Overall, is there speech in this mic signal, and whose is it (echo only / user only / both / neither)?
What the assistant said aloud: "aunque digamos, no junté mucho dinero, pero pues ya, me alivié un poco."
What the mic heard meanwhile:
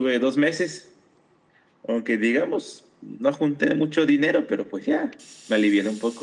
echo only